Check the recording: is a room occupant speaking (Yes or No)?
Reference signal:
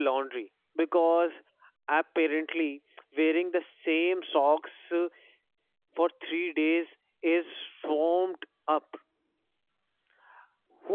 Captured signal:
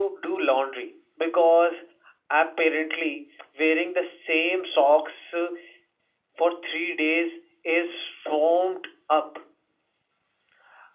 No